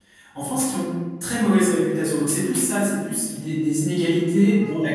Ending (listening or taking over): listening